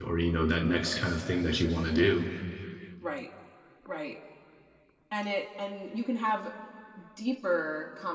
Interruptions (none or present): none